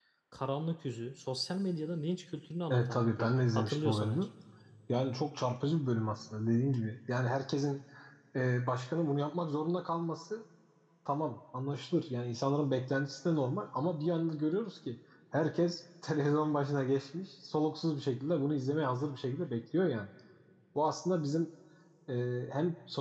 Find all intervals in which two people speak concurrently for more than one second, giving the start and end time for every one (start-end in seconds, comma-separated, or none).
2.7-4.2